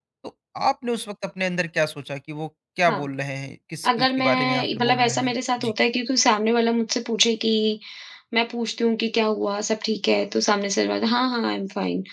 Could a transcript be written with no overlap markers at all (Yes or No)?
No